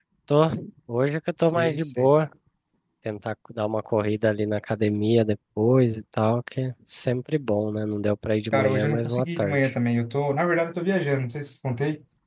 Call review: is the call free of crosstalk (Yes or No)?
No